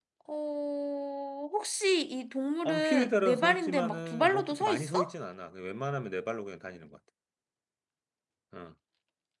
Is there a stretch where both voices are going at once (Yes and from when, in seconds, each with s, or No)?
Yes, from 2.6 s